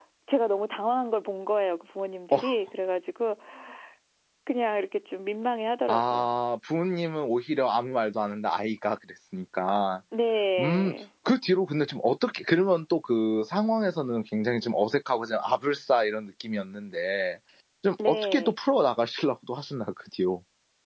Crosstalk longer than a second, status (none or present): none